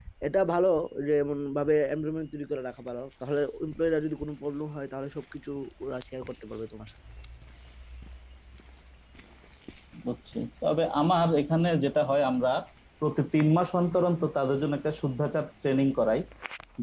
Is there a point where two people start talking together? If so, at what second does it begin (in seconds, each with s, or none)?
none